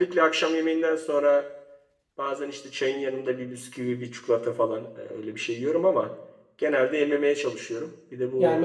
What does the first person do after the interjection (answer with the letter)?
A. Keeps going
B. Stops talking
B